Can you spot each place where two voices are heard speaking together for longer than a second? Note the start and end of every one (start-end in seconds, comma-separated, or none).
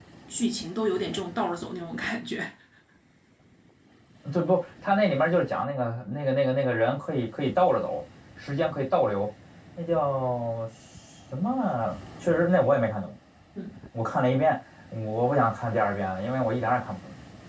none